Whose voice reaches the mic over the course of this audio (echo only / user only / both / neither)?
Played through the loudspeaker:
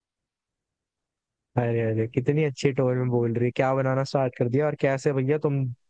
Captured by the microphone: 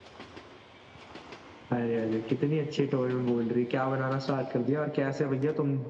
echo only